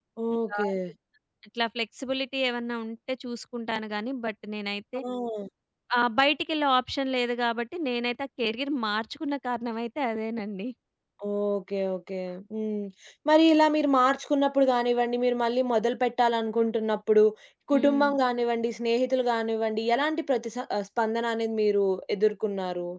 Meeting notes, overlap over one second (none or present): none